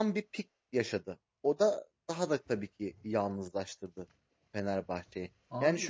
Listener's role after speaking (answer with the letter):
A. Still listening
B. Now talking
A